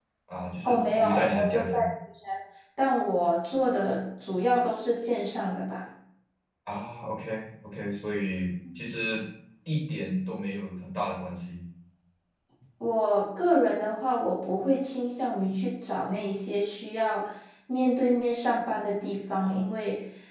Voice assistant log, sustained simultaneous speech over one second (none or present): present